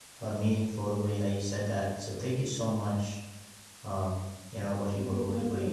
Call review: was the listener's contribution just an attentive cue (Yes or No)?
Yes